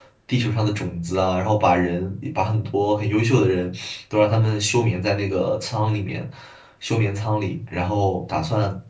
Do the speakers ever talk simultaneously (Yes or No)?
No